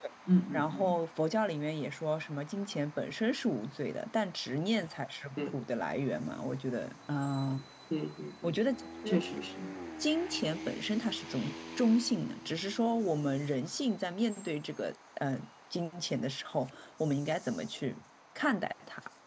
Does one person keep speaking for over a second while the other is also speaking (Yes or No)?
No